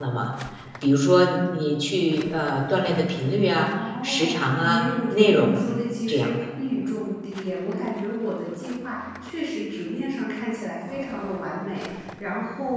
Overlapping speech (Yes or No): Yes